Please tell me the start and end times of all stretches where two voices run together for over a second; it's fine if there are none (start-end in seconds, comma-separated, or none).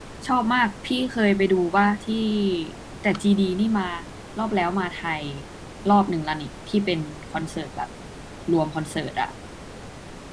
none